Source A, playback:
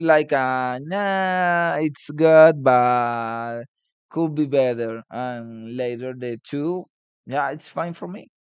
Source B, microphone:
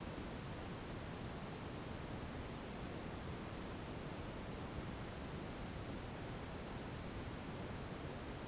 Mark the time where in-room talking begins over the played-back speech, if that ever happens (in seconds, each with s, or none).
none